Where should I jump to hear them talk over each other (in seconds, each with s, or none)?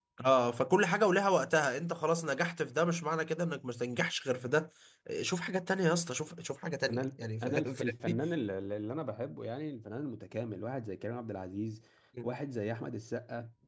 6.9 s